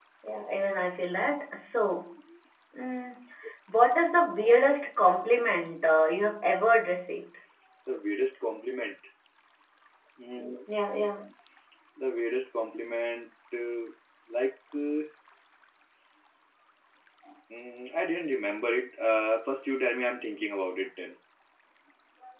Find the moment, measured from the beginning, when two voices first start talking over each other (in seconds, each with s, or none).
none